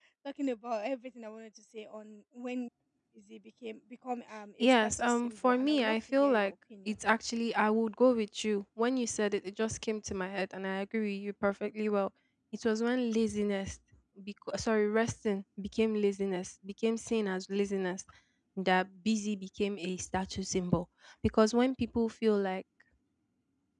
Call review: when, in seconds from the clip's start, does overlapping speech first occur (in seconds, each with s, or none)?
4.6 s